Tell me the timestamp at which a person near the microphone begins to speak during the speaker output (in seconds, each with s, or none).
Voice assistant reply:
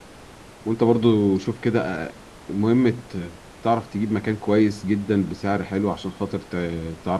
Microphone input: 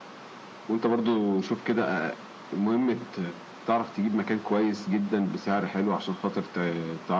none